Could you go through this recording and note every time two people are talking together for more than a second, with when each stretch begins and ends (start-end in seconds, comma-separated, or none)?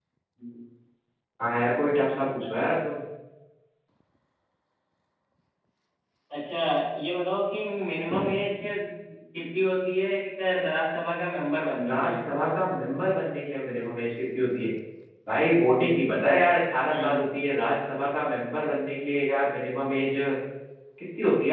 none